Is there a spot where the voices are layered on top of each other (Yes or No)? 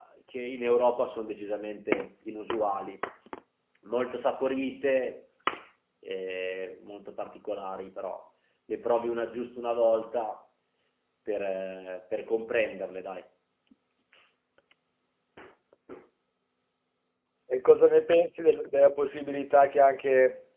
No